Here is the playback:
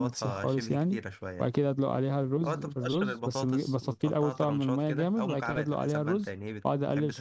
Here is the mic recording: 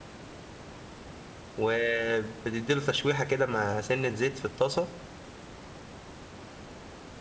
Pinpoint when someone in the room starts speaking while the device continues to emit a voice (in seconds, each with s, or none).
1.6 s